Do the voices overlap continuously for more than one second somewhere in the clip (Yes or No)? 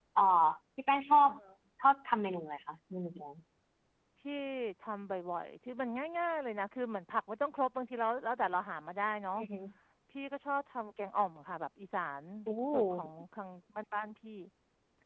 No